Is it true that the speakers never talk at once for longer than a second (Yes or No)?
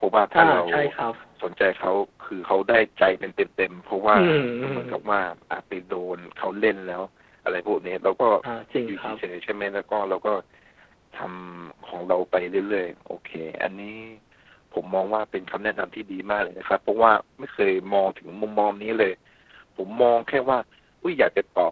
Yes